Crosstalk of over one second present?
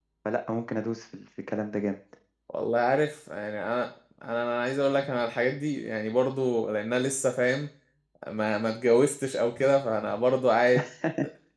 No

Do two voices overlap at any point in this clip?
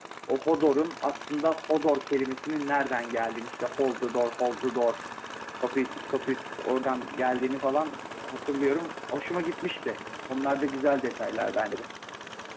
No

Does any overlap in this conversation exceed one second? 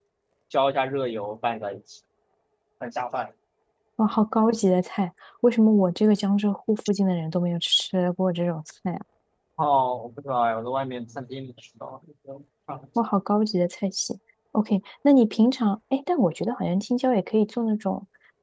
No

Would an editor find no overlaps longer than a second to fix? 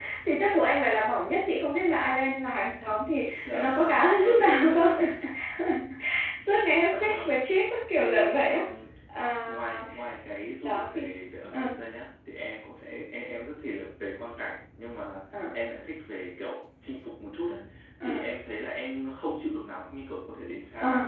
No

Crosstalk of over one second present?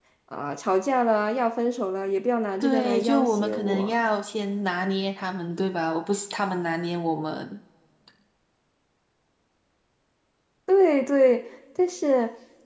Yes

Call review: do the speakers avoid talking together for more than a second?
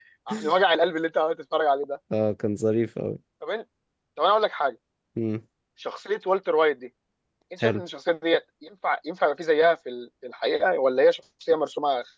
Yes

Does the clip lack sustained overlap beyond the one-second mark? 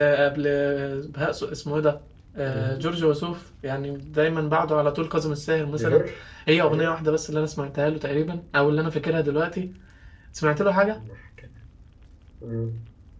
Yes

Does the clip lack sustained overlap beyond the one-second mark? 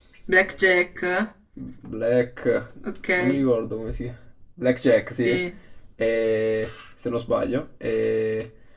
Yes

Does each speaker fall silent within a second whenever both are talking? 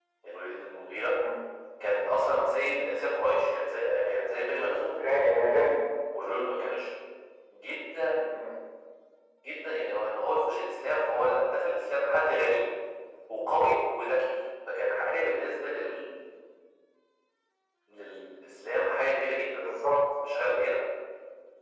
Yes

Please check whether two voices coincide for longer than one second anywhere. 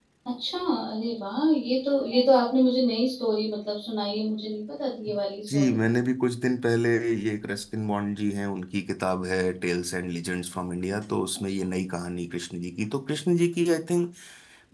No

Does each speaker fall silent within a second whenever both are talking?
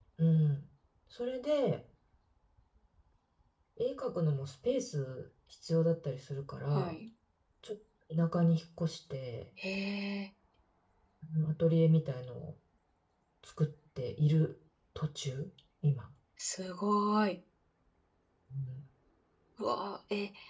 Yes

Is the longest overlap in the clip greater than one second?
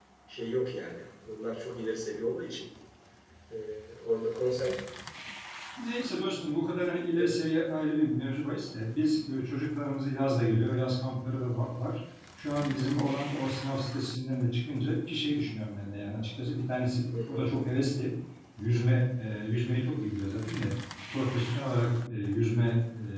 No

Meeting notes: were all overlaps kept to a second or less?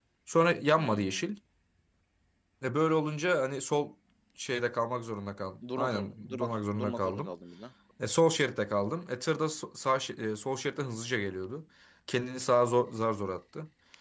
No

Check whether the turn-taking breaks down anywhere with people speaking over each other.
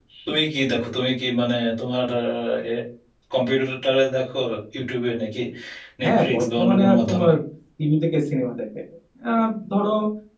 Yes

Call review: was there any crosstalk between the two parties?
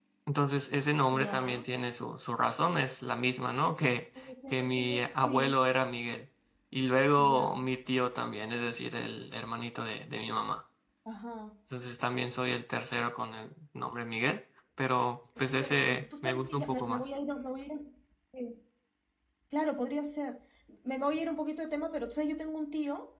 Yes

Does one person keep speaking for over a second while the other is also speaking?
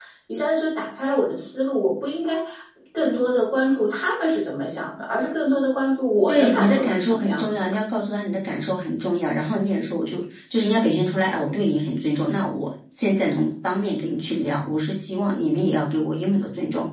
Yes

